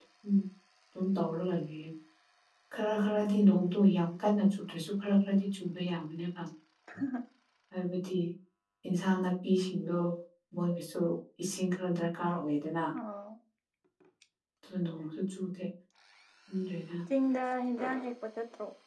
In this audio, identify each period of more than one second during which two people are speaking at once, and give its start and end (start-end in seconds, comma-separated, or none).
none